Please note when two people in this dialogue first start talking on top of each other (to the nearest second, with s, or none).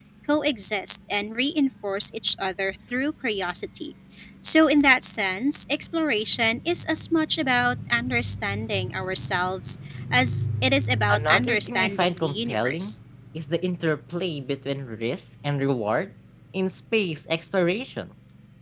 11 s